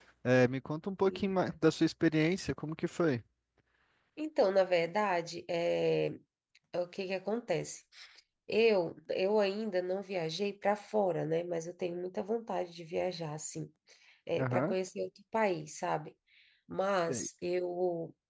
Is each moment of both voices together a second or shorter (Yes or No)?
Yes